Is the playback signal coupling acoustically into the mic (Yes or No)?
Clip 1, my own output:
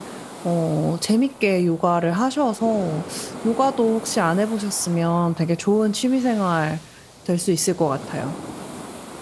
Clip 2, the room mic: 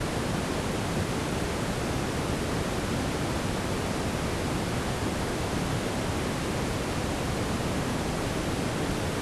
No